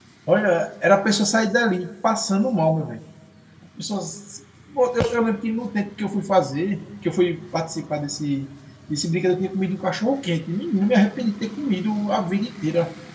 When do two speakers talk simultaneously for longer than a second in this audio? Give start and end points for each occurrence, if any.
none

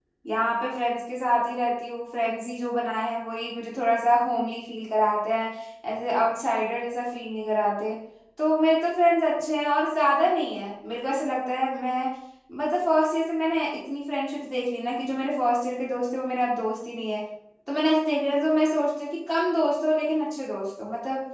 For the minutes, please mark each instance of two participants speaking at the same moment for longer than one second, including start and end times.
none

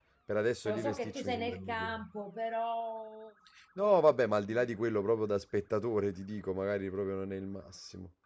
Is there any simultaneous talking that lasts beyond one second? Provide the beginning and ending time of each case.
0.7-2.0

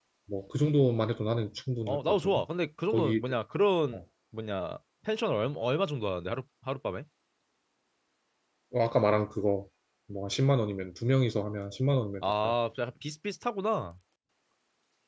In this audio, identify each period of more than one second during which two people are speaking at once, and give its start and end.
none

